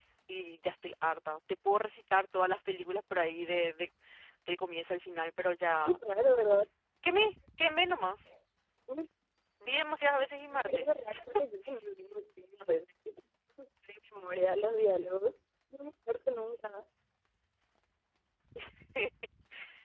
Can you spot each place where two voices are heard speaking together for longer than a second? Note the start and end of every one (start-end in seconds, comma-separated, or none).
none